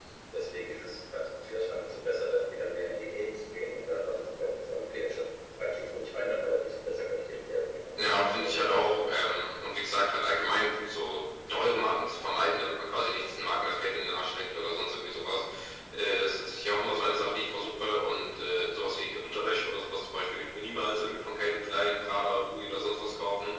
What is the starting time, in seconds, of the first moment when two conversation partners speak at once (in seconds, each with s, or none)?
8.2 s